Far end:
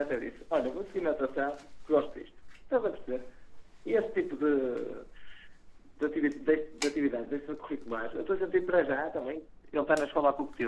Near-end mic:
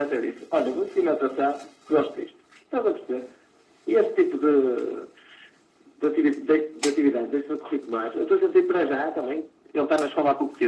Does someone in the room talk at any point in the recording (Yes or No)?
No